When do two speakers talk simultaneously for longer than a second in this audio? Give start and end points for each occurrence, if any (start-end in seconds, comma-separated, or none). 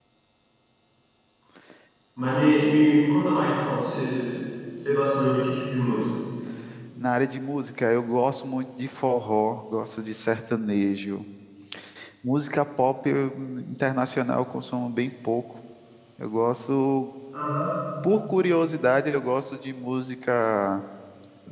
none